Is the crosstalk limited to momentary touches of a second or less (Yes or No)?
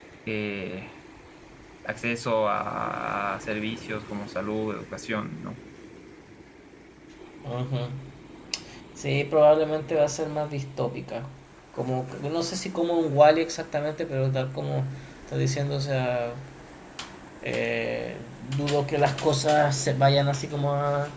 Yes